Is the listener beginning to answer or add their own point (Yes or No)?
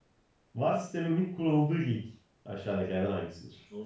No